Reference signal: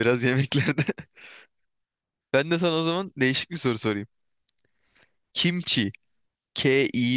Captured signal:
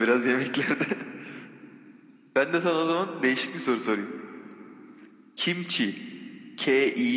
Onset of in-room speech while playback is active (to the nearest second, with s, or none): none